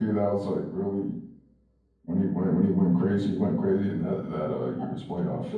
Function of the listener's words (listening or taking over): taking over